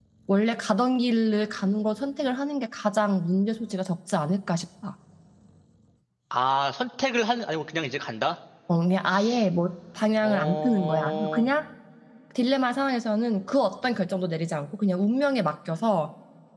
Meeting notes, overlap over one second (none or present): present